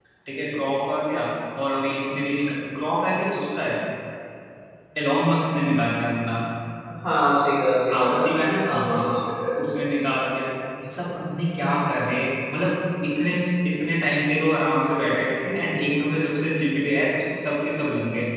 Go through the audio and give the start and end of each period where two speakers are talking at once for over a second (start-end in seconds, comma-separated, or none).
7.9-9.2